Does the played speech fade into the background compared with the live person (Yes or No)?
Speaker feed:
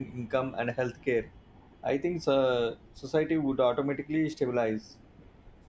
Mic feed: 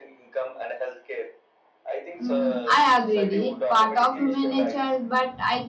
Yes